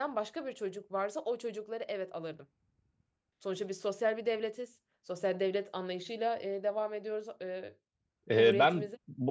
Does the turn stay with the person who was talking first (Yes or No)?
No